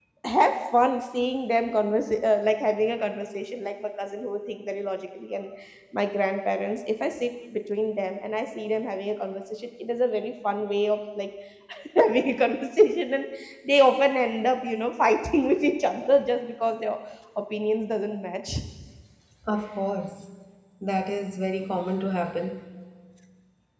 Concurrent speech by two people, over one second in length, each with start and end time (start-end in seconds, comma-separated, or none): none